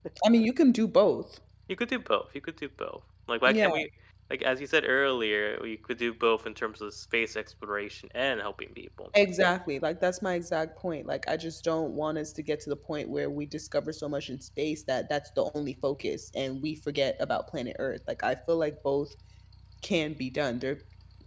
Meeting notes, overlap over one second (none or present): none